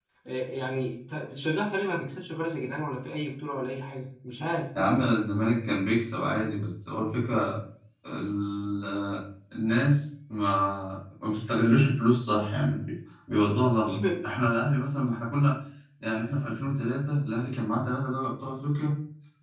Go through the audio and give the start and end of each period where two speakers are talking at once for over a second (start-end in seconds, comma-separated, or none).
none